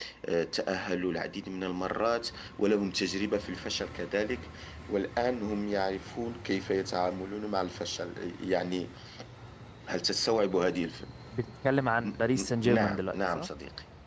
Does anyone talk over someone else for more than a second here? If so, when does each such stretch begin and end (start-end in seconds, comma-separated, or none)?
12.0-13.5